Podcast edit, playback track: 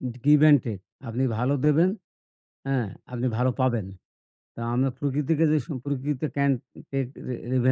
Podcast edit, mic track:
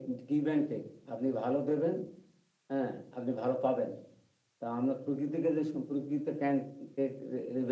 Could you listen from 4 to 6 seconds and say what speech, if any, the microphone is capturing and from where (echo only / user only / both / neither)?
echo only